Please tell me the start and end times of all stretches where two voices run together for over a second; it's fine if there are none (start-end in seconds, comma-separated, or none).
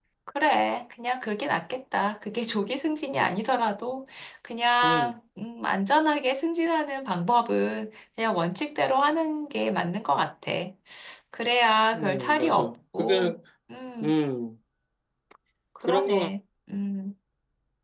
11.9-13.4